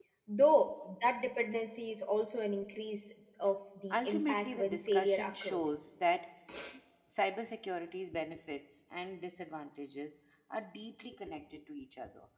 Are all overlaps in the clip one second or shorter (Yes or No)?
No